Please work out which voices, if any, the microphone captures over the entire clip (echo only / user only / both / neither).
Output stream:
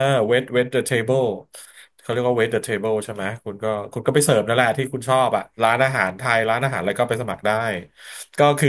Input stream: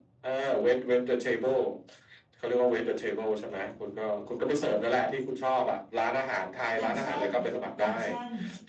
both